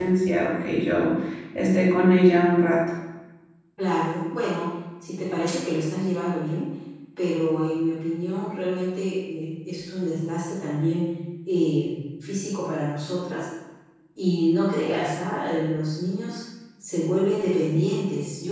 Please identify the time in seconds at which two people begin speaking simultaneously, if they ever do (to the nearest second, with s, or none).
none